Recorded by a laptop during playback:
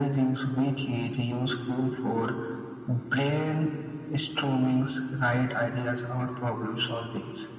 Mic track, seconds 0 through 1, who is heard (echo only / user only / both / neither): echo only